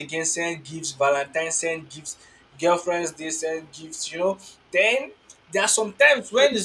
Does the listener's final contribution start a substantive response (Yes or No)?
No